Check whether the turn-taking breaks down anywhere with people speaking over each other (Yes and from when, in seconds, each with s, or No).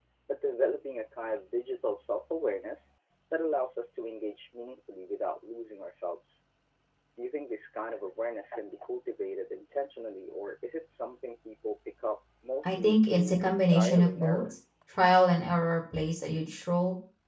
Yes, from 12.6 s